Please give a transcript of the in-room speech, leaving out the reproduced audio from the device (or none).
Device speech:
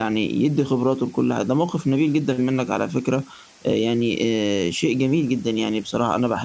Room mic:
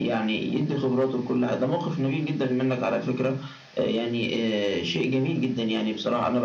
none